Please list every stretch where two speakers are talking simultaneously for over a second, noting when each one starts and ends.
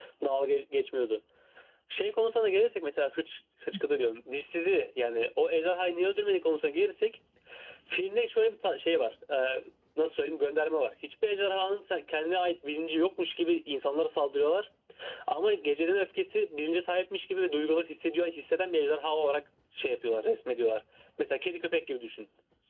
none

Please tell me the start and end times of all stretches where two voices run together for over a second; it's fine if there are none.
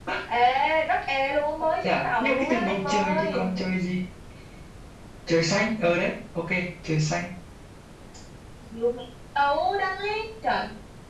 1.8-3.5

